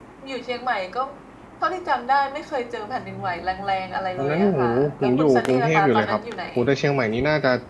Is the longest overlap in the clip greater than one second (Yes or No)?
Yes